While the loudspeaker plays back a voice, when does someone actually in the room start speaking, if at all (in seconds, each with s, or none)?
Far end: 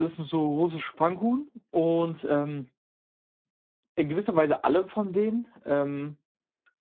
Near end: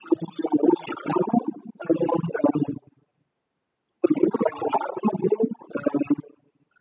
none